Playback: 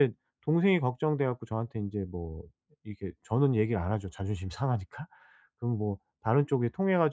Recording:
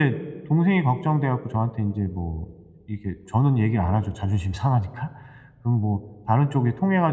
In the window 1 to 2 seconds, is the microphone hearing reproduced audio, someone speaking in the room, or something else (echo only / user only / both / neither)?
echo only